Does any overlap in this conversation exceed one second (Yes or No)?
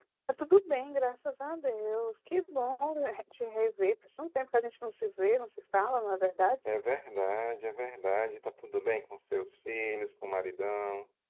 No